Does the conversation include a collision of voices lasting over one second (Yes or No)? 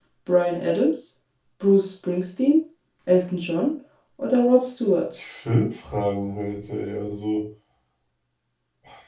No